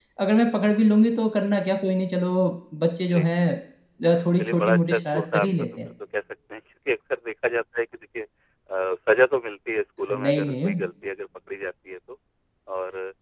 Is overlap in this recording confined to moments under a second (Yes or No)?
No